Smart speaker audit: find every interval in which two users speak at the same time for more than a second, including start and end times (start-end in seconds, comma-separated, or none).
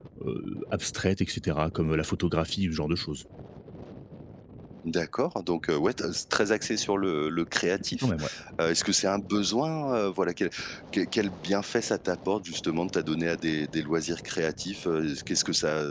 none